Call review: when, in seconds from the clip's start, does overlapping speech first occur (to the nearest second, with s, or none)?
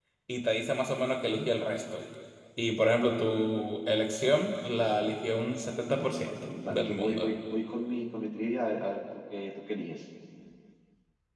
6 s